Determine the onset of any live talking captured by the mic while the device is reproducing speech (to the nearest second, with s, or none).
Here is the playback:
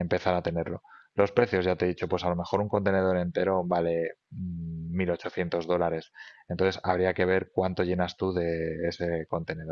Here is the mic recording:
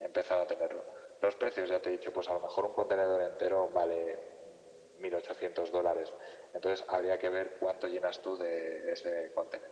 none